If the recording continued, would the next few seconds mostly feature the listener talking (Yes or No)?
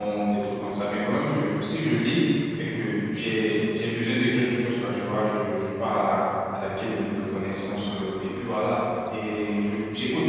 No